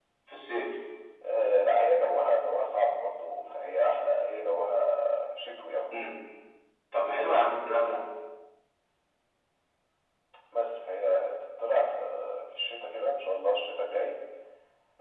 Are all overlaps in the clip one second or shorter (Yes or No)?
Yes